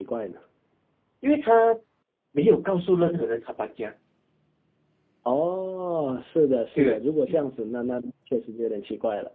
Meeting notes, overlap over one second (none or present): none